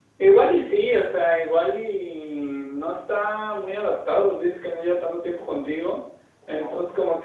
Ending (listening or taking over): listening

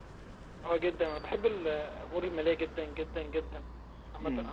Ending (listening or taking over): listening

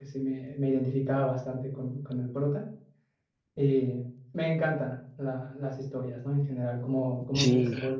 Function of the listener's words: listening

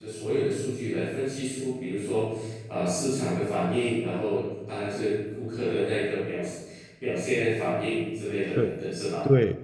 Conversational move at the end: taking over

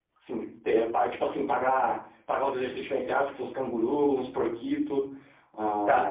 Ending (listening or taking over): taking over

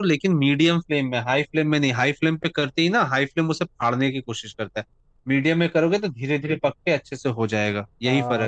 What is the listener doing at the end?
taking over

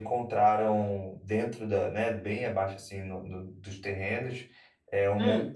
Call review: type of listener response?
listening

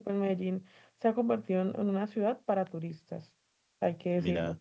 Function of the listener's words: listening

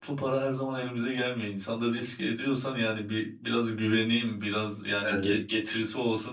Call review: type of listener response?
listening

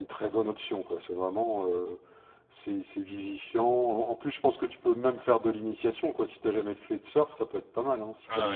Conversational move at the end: taking over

